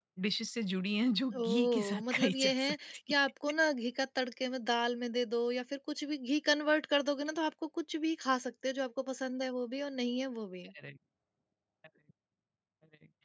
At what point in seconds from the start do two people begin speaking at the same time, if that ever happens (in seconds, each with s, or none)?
1.3 s